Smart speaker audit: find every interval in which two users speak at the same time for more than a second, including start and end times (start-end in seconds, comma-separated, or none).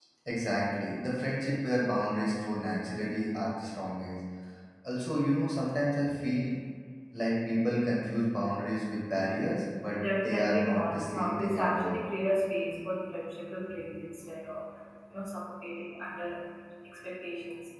10.0-12.0